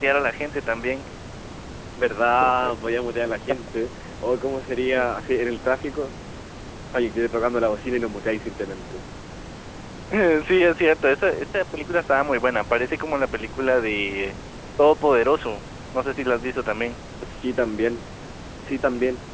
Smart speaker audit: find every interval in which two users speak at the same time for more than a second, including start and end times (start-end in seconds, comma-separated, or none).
none